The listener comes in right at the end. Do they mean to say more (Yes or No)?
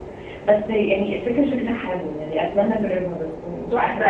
Yes